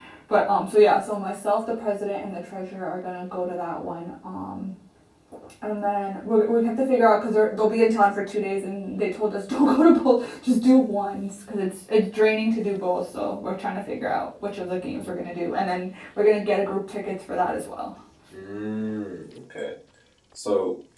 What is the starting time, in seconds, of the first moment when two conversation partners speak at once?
none

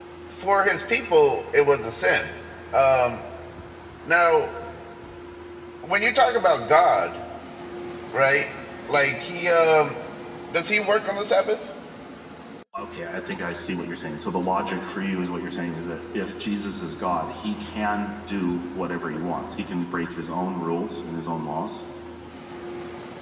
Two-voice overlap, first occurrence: none

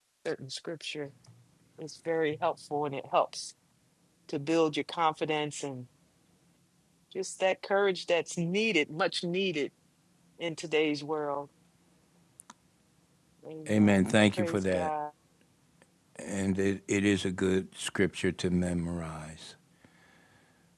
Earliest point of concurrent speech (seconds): 13.7 s

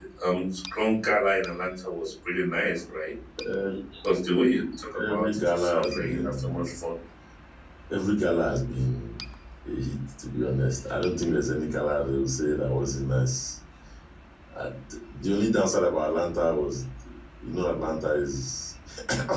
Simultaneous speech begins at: 5.1 s

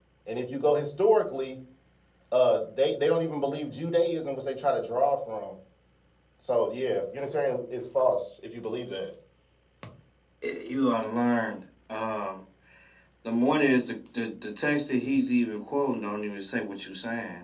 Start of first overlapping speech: none

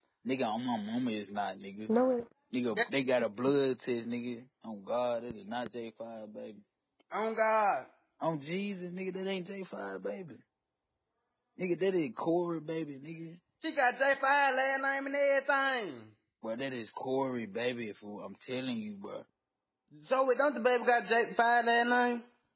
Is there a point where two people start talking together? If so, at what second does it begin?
none

